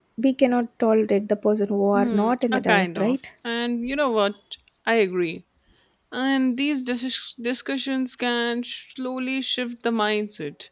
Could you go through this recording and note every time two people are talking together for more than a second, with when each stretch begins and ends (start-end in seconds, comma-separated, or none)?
1.9-3.2